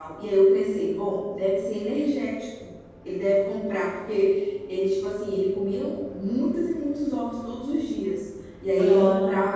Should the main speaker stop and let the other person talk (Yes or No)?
No